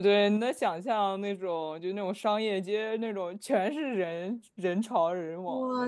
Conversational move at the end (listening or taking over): taking over